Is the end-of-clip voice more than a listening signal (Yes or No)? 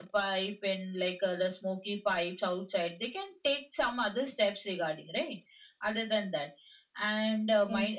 No